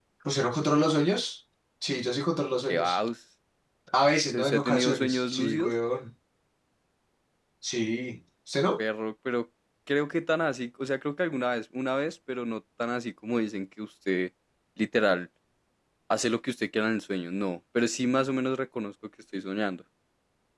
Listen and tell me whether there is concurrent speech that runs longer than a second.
Yes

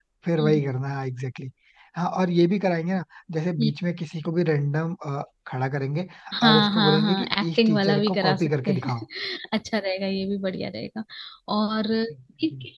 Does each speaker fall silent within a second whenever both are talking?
No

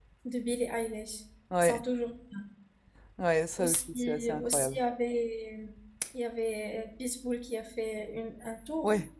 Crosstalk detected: Yes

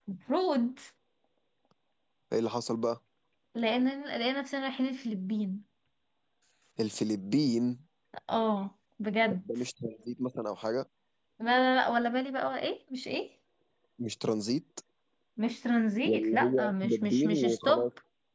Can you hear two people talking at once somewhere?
Yes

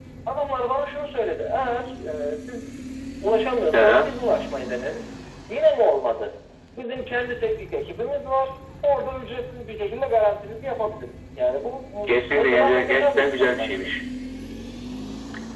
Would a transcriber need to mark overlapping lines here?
Yes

